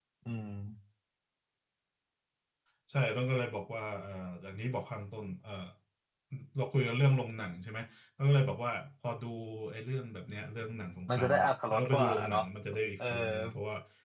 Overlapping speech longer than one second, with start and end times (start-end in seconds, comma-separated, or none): 11.1-12.4